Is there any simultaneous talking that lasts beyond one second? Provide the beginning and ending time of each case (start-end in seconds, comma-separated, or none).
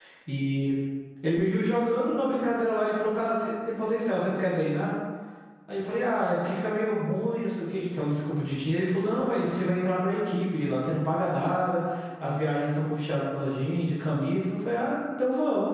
none